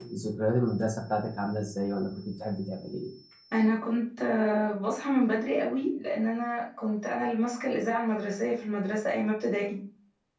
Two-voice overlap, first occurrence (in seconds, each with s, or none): none